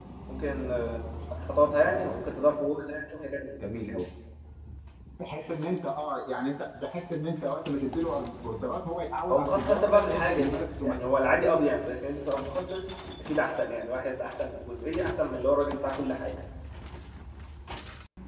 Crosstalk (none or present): present